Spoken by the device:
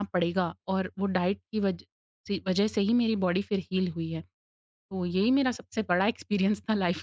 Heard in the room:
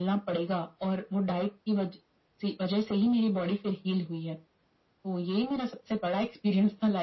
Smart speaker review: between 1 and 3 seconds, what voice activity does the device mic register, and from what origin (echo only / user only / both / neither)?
echo only